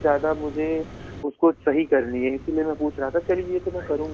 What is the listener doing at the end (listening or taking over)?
listening